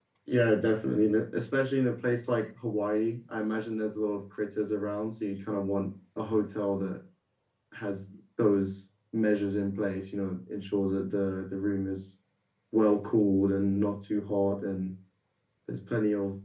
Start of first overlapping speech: none

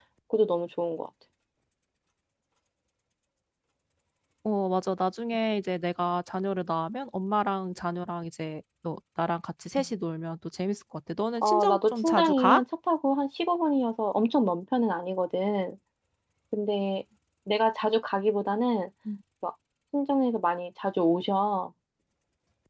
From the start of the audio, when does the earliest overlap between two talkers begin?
11.4 s

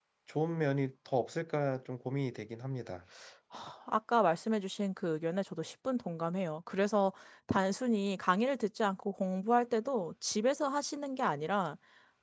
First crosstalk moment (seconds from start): none

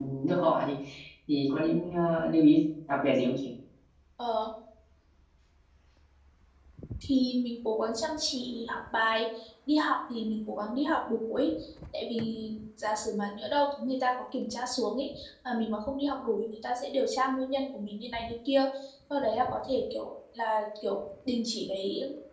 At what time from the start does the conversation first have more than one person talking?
none

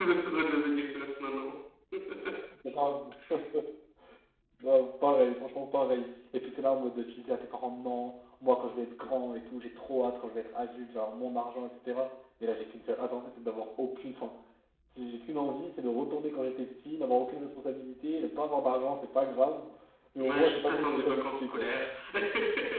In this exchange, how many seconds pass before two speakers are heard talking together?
20.2 s

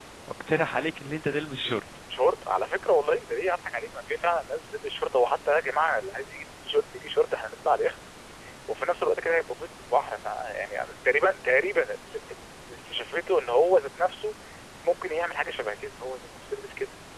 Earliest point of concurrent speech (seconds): none

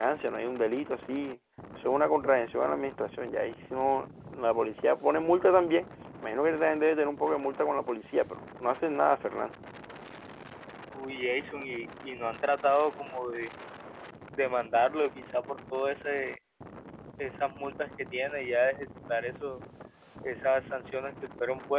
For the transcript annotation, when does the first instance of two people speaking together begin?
none

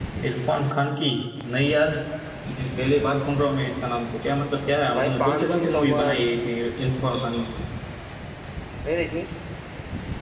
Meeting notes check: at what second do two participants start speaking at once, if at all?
5.0 s

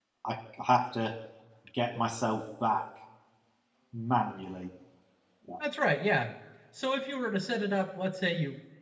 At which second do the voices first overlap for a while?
none

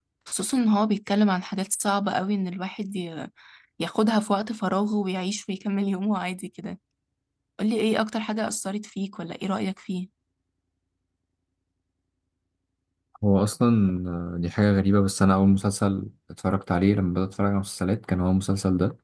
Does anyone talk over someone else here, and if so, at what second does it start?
none

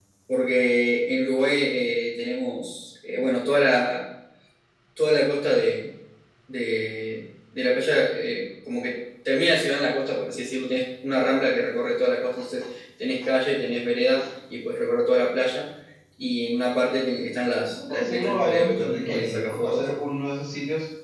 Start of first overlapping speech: 17.7 s

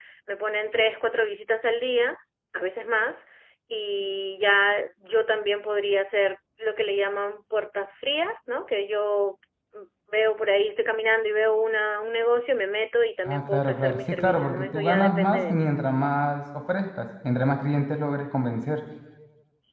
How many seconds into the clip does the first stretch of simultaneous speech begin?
13.2 s

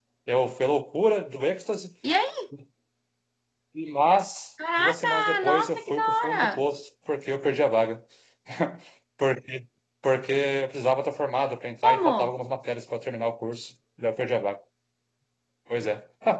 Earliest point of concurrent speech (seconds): 4.8 s

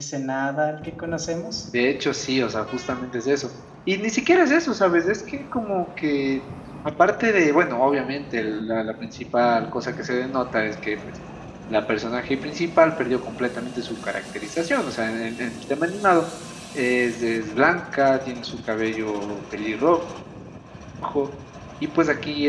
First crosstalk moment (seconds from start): none

